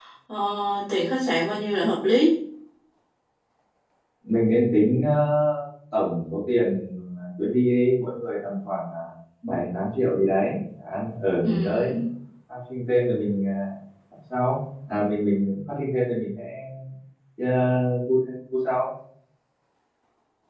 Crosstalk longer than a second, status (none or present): none